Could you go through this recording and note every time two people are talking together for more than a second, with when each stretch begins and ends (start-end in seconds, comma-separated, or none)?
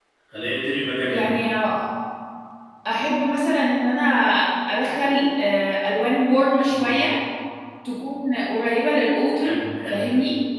none